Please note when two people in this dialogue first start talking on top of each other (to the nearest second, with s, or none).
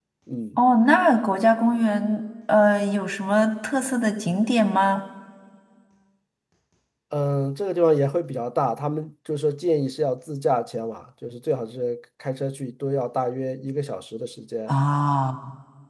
none